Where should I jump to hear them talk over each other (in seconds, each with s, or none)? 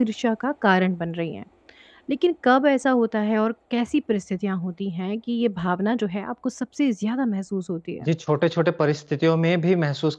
none